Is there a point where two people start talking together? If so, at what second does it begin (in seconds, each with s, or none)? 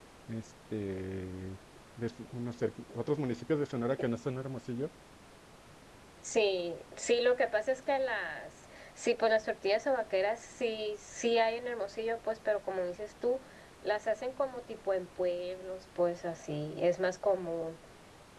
none